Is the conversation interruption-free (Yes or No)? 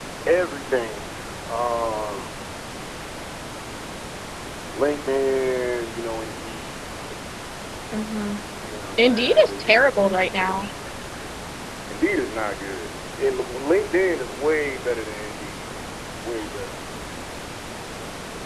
No